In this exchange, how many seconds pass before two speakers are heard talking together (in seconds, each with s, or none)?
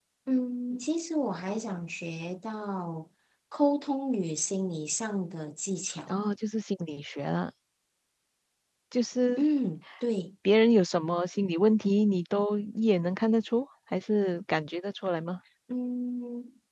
none